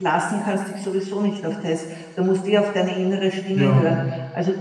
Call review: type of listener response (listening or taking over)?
listening